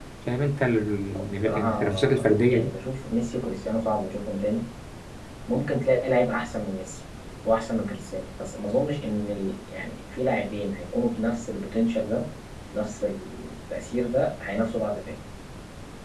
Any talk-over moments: Yes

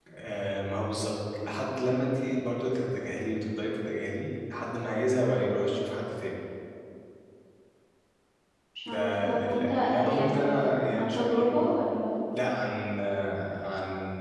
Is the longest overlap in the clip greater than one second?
Yes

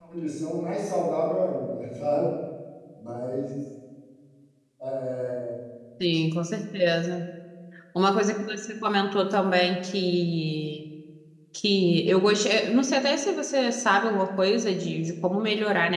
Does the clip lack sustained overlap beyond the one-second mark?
Yes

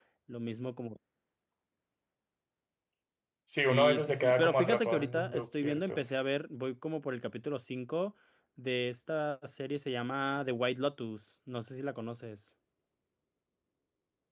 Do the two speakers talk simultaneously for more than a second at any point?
Yes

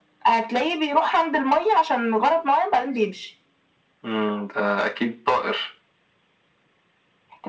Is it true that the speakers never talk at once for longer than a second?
Yes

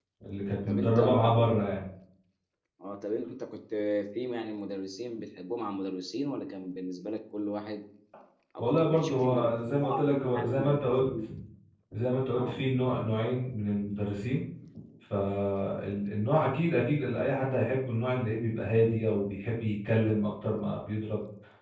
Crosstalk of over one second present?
Yes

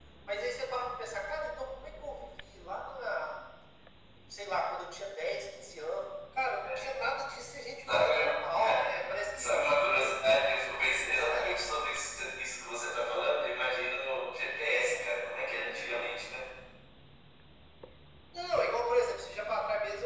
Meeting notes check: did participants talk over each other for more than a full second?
No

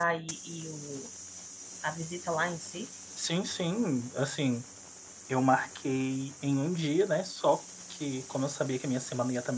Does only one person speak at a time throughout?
Yes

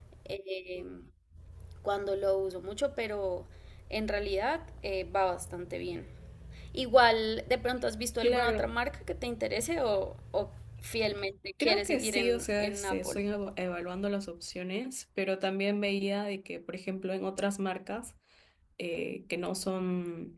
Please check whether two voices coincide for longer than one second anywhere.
Yes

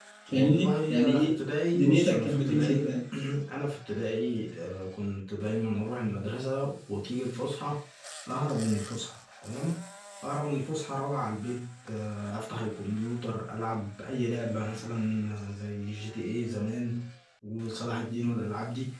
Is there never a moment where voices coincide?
No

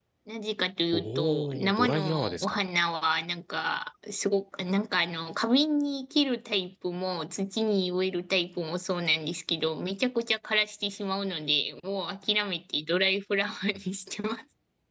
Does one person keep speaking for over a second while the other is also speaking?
Yes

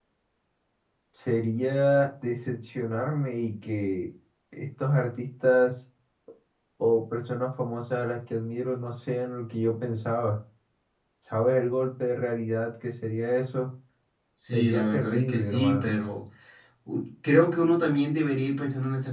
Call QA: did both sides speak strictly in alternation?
No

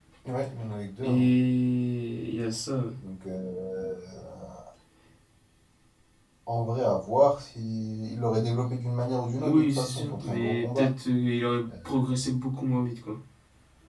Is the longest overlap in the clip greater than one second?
Yes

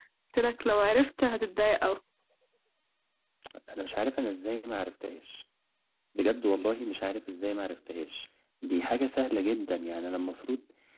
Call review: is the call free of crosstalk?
Yes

